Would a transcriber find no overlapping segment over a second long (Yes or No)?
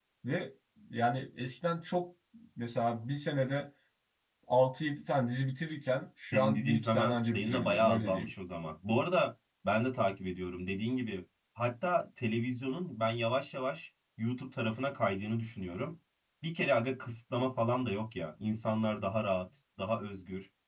No